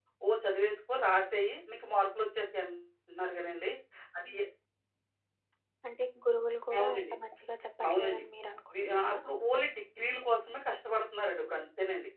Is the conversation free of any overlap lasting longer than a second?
Yes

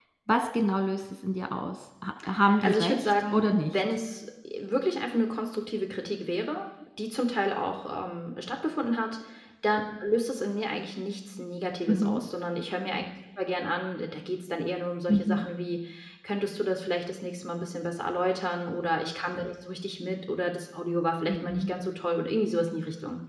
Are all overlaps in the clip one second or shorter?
No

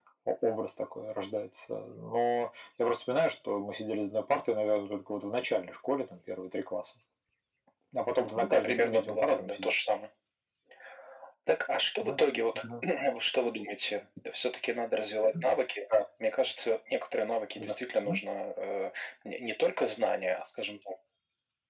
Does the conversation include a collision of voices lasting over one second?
Yes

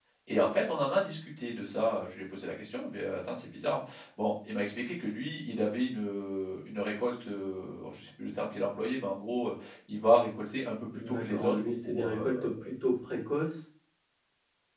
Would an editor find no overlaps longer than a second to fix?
No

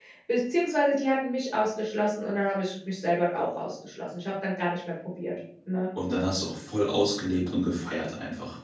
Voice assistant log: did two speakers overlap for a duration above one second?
No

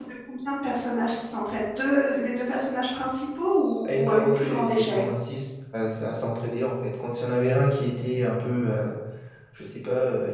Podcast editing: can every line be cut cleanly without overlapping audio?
No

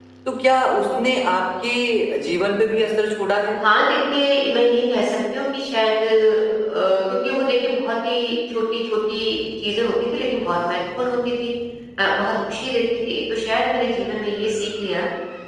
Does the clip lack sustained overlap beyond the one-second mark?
Yes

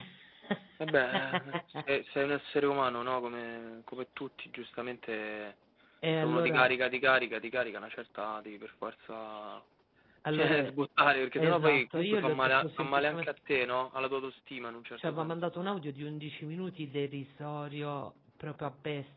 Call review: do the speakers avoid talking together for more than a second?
No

